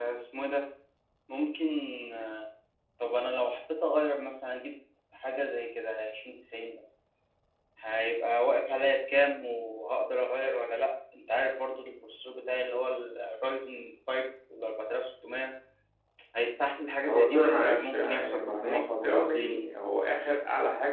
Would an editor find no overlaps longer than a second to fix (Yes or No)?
No